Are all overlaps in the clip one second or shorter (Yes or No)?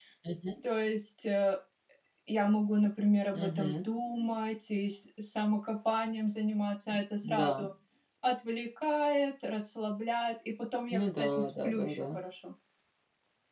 No